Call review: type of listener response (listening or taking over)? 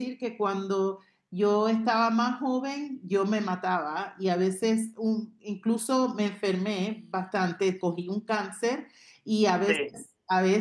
listening